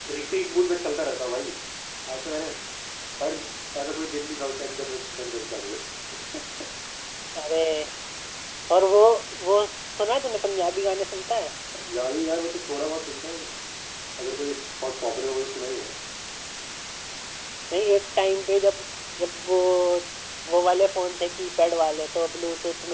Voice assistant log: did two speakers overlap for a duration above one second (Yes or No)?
No